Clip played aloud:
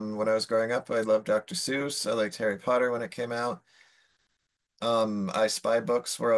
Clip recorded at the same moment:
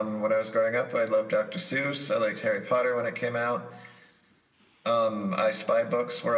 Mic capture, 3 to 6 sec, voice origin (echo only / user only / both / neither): echo only